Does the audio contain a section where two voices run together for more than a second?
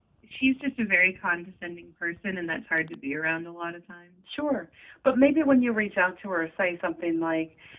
No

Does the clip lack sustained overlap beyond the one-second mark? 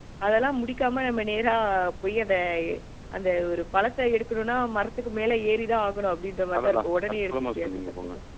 No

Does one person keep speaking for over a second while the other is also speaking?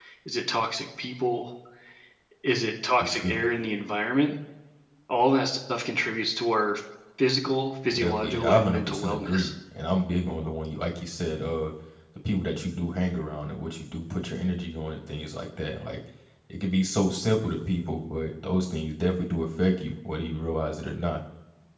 Yes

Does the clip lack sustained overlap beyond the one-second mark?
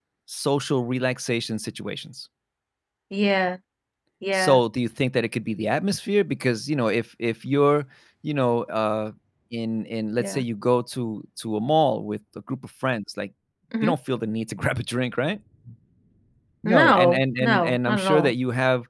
No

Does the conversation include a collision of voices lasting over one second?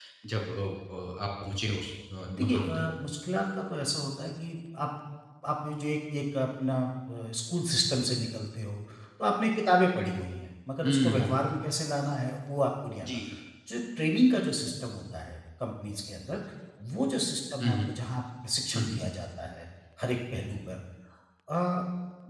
No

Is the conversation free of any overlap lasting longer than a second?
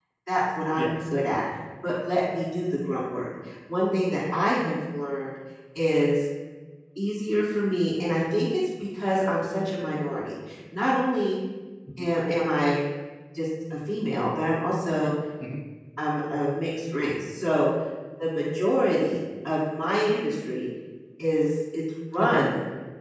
Yes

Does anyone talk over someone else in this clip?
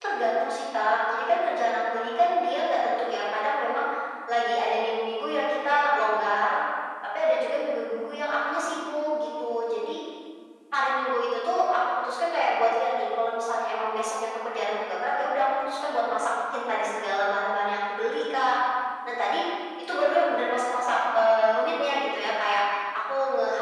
No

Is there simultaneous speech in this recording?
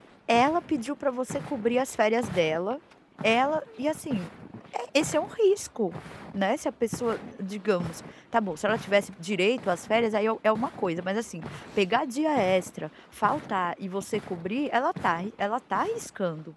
No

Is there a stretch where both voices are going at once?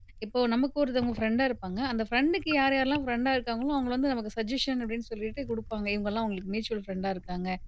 No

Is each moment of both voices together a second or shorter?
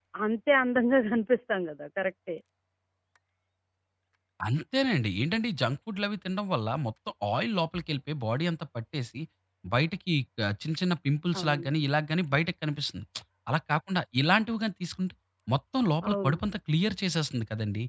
Yes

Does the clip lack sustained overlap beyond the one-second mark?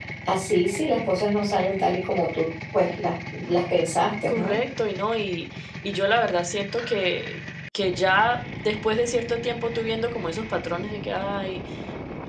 Yes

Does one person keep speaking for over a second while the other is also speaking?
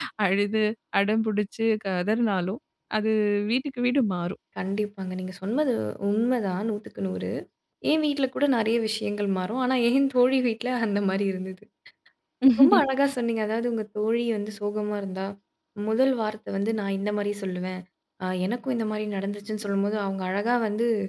No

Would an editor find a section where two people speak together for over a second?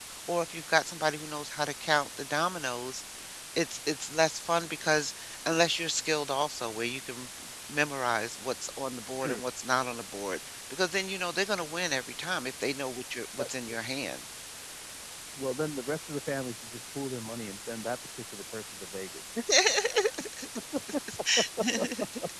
No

